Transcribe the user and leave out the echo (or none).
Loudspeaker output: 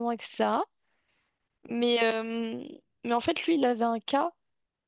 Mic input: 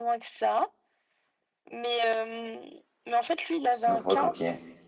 C'est loufoque, ok.